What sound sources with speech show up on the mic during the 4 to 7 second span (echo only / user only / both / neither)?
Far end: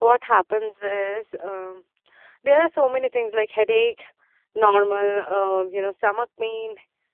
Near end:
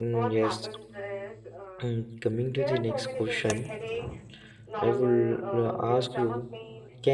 both